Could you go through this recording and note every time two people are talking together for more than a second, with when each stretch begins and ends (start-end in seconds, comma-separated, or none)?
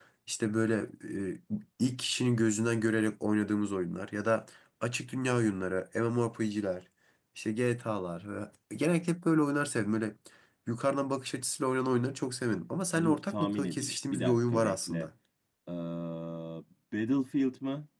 13.0-15.1